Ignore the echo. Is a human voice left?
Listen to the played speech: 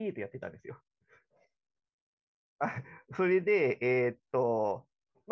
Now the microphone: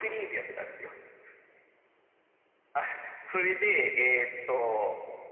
No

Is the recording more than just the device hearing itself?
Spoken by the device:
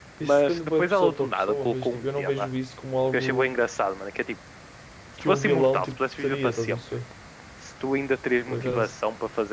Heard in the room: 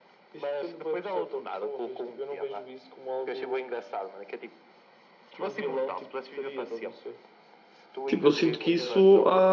Yes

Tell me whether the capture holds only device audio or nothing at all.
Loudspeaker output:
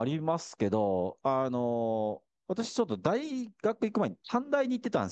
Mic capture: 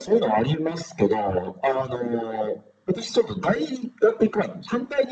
Yes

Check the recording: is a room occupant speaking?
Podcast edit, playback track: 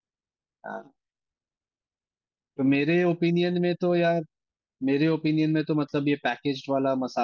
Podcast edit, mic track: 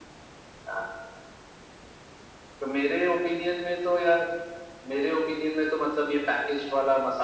No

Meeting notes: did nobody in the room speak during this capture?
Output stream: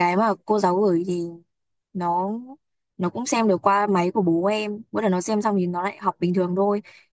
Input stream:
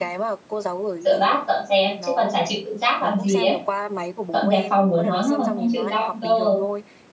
No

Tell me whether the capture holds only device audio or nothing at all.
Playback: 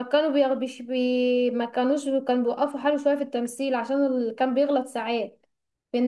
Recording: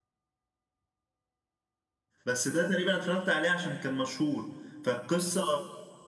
No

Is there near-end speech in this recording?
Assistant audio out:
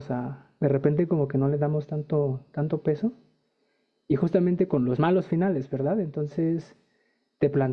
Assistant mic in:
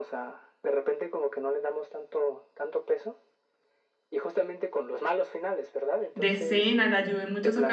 Yes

